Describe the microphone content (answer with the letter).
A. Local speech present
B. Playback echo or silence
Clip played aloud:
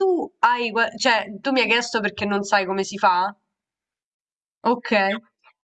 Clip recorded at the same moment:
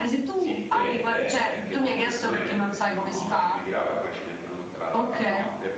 A